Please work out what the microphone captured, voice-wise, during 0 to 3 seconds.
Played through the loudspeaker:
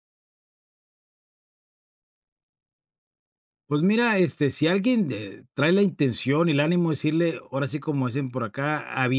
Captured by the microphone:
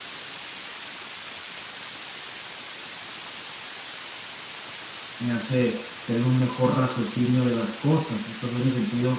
neither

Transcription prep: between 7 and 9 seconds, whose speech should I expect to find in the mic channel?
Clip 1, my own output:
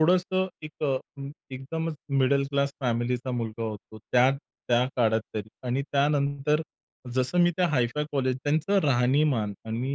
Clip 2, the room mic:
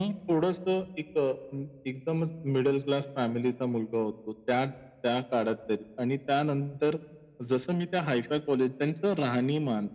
echo only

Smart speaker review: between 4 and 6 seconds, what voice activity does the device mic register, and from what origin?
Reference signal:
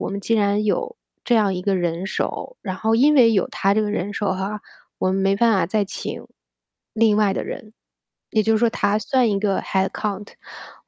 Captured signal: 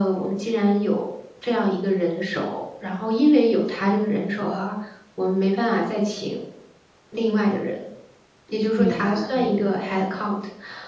echo only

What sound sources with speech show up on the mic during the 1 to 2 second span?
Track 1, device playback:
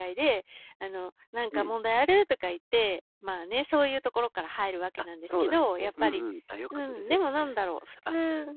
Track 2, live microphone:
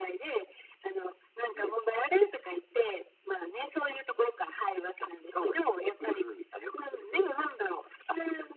echo only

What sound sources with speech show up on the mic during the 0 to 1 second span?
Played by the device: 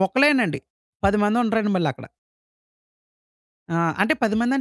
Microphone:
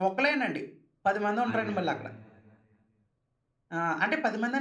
echo only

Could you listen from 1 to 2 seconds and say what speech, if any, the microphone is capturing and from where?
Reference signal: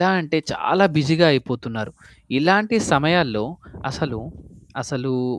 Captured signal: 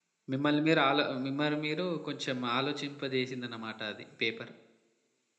user only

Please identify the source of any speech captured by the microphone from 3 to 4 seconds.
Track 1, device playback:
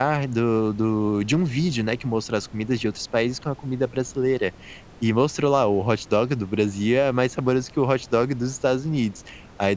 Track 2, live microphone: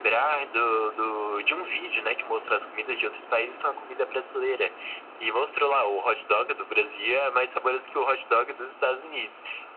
echo only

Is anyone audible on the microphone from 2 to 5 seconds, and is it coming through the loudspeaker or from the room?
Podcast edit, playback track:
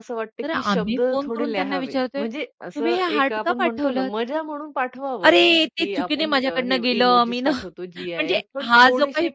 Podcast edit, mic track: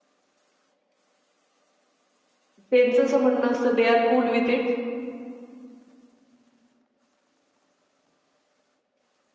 user only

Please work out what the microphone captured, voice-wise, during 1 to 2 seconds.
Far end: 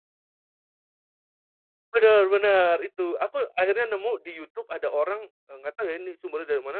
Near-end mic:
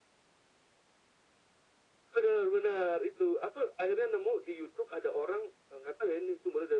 neither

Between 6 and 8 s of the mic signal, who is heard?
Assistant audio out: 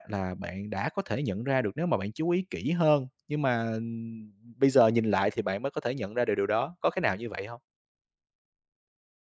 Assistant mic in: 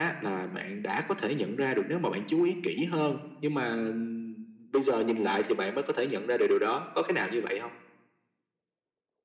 echo only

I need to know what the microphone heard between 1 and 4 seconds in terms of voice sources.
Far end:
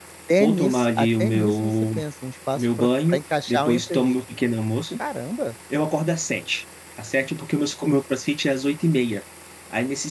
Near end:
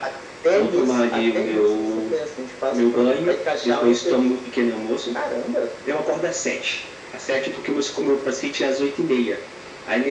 echo only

